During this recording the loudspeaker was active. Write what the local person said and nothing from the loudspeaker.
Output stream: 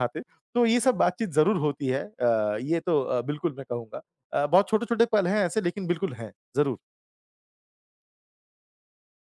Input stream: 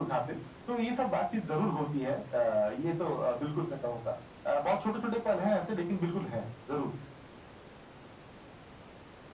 none

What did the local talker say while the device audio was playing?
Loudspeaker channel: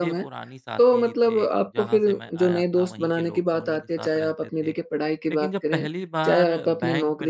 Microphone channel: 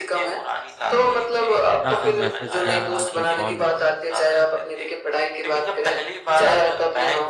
ना कोई मैसेज गया, ना कोई कॉल उठा।

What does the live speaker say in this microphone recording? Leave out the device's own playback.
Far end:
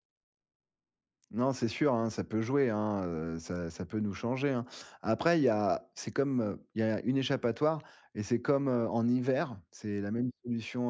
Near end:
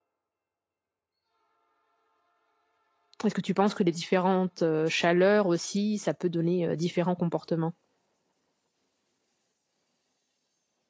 Est-ce que tu penses que les différentes, heu, chaleurs aussi, ça peut donner, heu, différents comportements?

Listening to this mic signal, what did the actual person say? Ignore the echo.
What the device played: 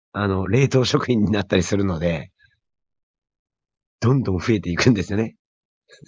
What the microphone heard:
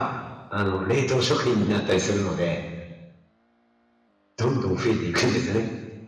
none

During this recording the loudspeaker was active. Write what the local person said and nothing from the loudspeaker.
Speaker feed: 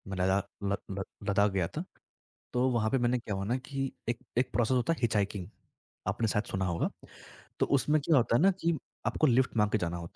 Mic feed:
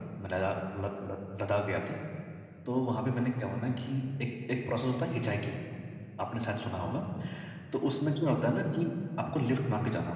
none

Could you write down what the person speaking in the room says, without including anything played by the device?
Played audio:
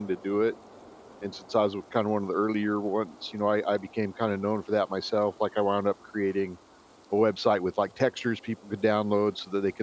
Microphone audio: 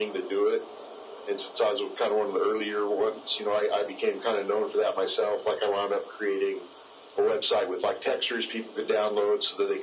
none

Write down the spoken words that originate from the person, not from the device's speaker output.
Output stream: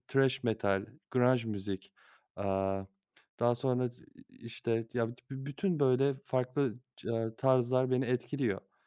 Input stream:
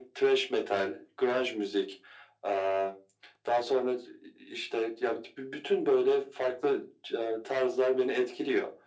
none

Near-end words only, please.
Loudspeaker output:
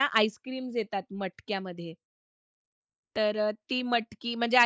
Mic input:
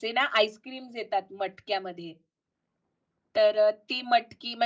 none

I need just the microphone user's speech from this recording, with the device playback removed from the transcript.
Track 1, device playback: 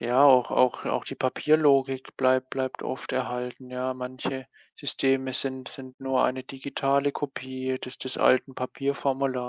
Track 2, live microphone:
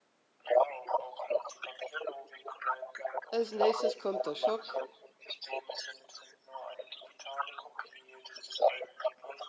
Als Nächstes kommt der Schock.

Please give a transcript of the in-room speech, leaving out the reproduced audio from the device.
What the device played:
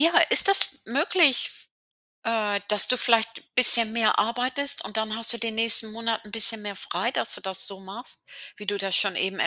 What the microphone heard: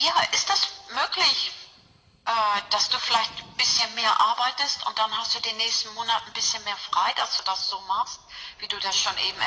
none

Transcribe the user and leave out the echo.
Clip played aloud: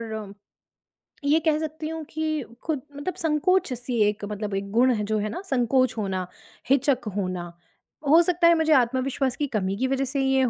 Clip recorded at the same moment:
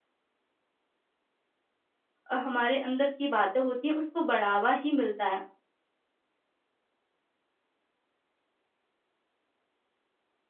अ, हमारे अंदर की बातें होती हैं, उसको बढ़ावा ही मिलता है

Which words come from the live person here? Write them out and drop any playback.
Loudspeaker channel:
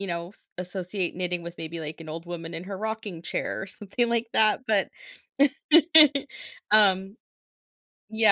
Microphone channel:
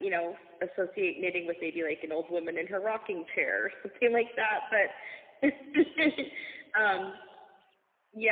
none

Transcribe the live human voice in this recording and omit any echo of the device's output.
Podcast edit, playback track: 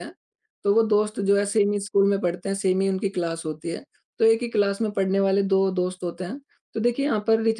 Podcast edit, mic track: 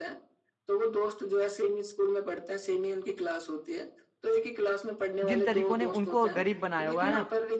जिन तरीकों ने उनको गरीब बनाया होगा, है ना?

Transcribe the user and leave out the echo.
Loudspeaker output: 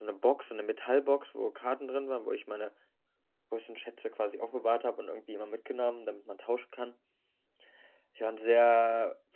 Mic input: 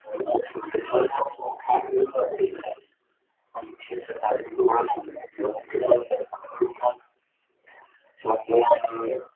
none

